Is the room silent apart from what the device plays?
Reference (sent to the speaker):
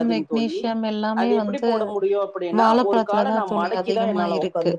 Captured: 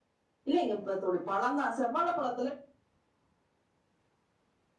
No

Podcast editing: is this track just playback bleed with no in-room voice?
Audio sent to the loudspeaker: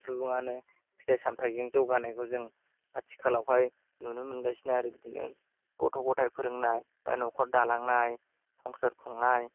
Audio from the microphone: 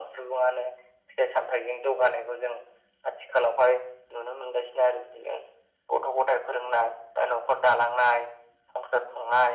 Yes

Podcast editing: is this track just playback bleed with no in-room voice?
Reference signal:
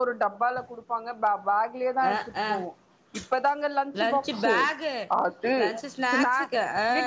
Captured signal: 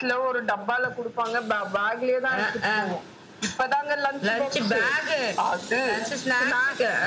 Yes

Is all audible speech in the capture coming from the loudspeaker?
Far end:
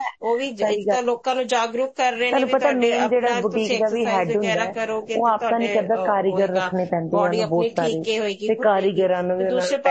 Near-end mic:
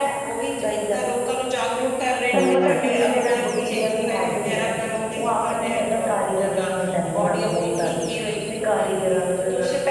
No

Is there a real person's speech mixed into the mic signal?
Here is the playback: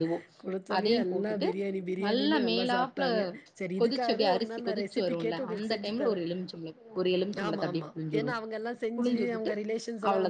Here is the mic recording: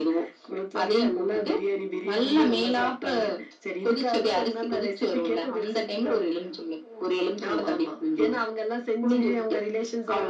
No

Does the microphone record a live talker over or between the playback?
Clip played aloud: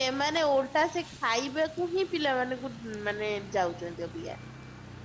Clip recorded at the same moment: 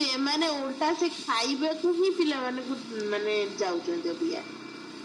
No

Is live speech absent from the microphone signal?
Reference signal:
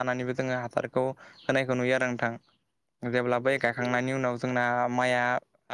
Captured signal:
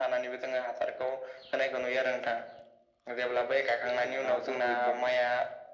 No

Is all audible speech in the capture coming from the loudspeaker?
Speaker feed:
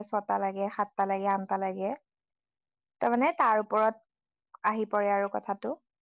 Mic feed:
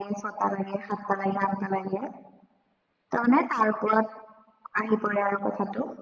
Yes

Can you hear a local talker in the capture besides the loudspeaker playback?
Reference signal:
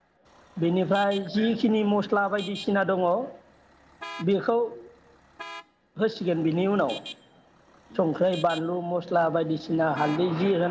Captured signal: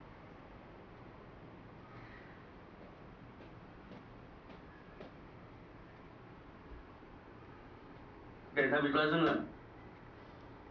Yes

